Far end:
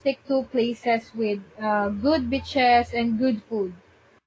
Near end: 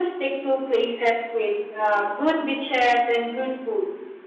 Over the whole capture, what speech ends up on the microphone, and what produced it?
echo only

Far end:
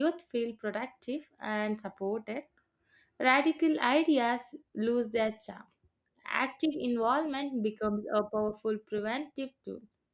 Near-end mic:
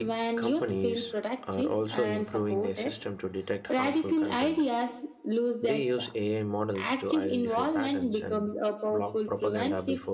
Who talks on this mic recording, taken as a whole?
both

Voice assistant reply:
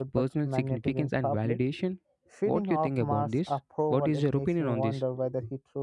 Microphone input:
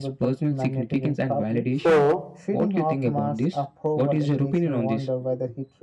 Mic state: both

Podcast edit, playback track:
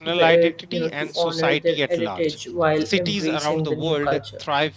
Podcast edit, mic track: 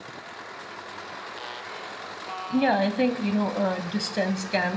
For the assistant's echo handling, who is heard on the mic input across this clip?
user only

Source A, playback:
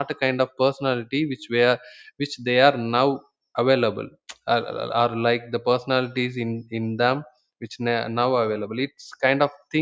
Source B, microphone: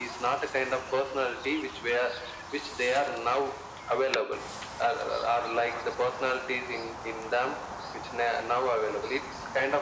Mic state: echo only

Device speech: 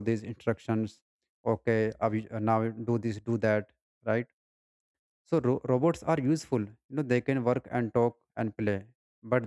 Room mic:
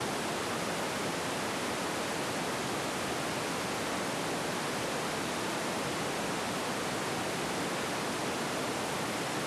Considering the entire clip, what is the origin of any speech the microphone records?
neither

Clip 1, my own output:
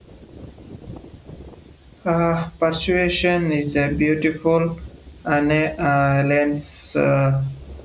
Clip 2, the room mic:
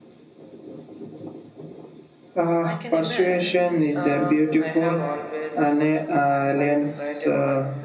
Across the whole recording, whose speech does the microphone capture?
both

